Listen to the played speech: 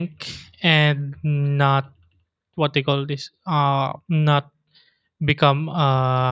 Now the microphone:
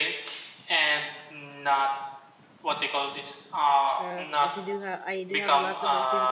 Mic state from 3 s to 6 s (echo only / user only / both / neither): both